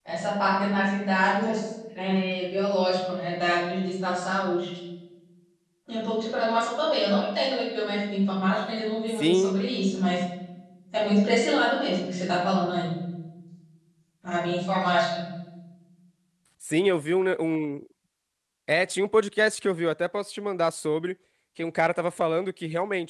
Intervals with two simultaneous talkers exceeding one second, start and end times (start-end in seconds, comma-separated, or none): none